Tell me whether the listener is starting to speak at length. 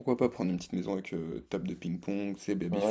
Yes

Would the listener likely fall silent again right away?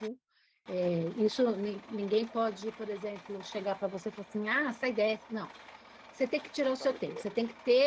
Yes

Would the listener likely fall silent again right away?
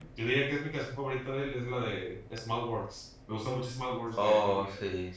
No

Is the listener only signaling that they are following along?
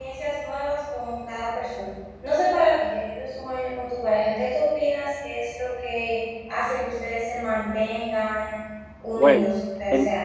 No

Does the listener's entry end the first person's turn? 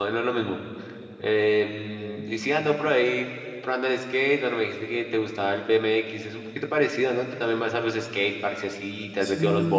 Yes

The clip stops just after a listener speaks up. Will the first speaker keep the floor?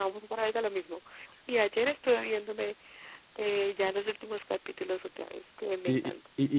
No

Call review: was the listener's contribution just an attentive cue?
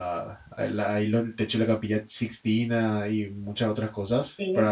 Yes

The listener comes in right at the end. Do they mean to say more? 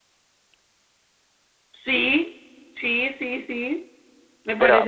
Yes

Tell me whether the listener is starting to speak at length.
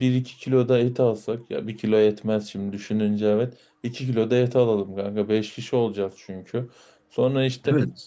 No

